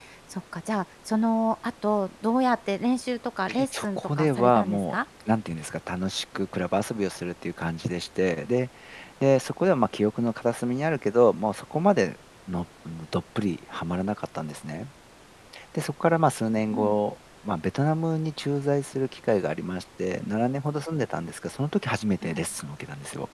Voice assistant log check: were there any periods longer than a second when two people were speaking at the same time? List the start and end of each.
3.7-5.0

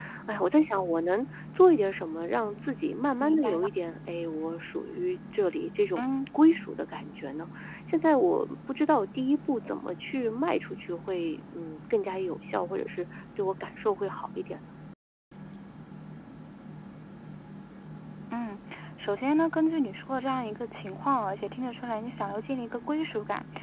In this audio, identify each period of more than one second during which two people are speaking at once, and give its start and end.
none

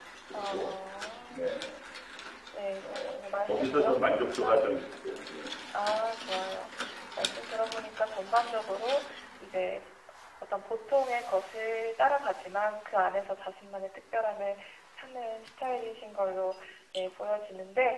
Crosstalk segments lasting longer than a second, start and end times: 2.8-4.7

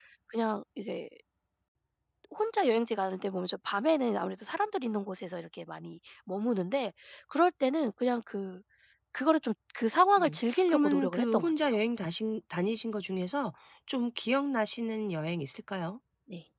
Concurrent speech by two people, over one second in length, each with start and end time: 10.2-11.7

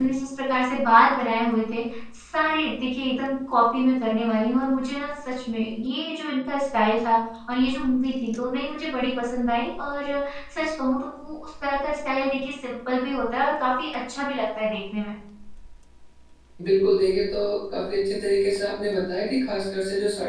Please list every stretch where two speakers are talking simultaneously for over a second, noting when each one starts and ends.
none

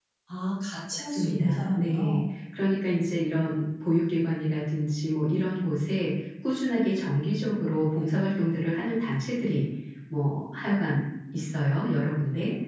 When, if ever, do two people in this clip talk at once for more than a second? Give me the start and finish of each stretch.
1.0-2.2

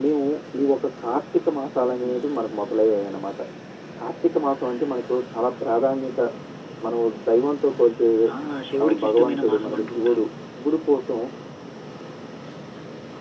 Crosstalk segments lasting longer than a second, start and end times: 8.8-10.2

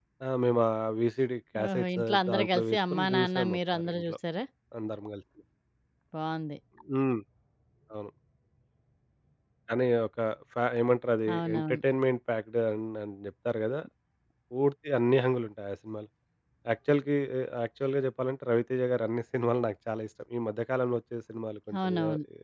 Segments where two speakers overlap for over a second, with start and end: 1.7-4.1

